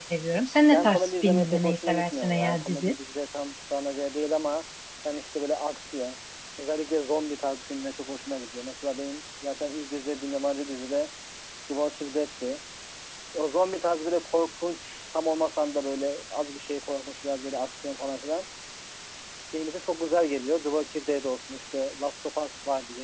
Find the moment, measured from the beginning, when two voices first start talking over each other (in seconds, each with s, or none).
0.7 s